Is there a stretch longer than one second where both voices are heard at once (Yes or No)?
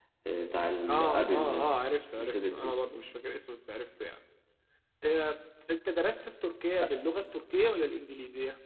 Yes